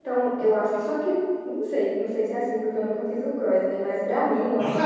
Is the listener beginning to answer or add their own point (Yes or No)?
No